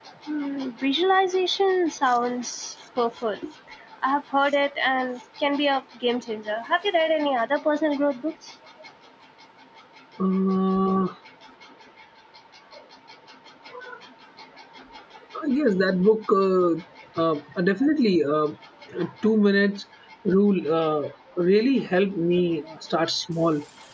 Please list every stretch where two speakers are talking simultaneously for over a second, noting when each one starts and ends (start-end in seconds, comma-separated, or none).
none